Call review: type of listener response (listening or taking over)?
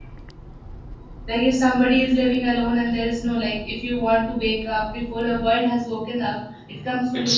taking over